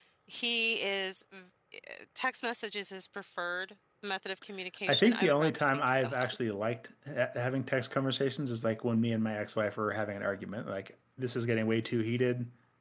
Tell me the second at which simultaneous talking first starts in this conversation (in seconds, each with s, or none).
4.9 s